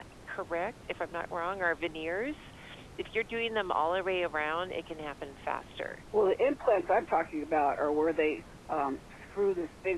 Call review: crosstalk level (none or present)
none